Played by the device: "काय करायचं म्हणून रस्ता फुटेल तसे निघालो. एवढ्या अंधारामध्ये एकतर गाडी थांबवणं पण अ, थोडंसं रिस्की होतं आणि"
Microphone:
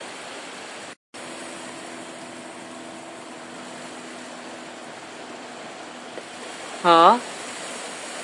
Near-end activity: present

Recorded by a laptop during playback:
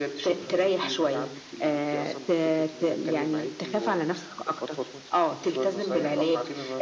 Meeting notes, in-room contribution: none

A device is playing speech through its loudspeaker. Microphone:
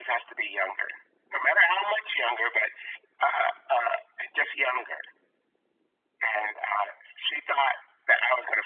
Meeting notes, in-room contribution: none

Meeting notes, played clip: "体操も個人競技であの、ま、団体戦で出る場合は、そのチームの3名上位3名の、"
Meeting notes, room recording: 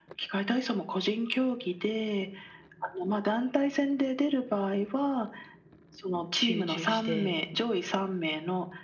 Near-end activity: present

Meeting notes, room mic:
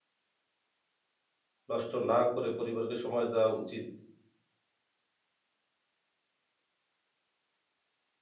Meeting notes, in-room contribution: present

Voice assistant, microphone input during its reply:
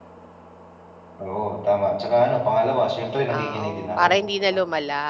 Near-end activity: present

